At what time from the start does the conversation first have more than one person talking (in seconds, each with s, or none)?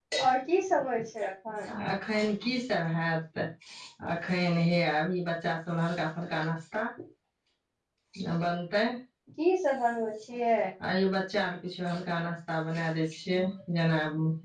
none